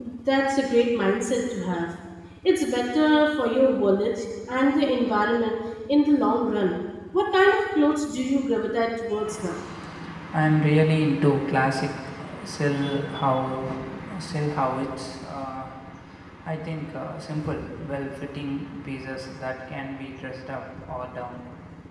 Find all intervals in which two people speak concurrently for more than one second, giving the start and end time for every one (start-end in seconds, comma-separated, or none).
none